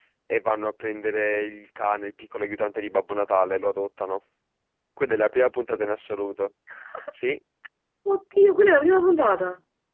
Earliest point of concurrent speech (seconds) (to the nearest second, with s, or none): none